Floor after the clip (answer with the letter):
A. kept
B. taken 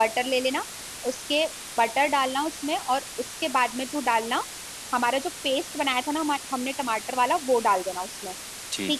B